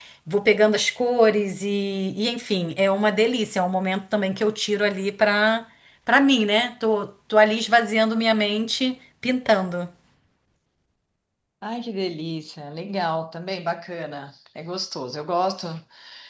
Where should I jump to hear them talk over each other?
none

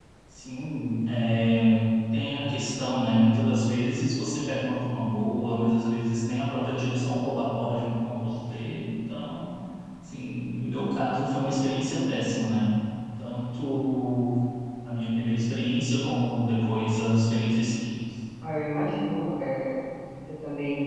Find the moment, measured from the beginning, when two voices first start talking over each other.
none

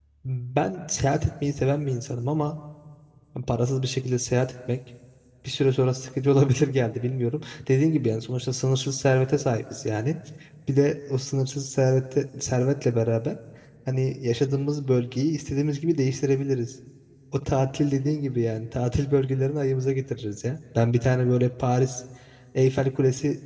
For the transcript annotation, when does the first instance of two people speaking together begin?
none

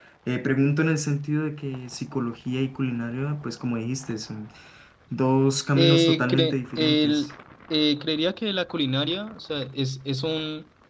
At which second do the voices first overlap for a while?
6 s

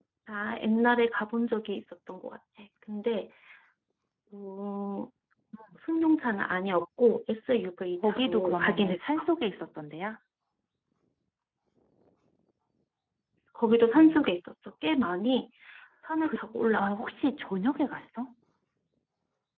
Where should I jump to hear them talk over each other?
8 s

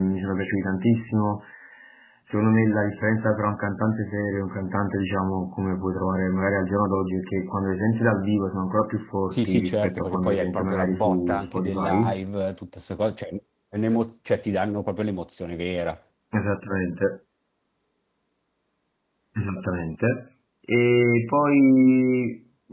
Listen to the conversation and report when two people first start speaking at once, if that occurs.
9 s

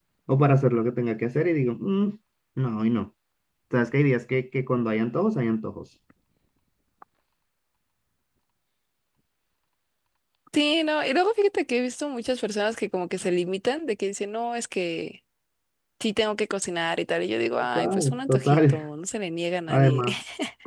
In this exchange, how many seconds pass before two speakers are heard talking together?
18 s

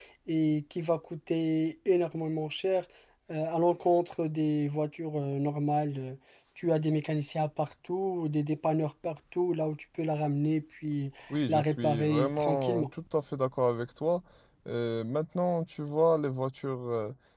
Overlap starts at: 11 s

